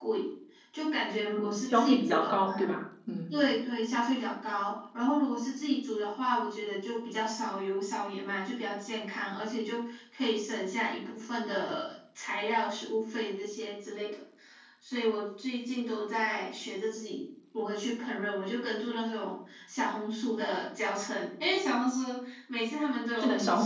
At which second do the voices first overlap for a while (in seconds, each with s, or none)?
1.3 s